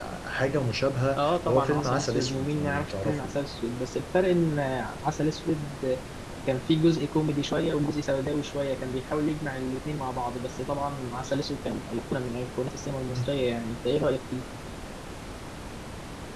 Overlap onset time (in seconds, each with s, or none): 1.2 s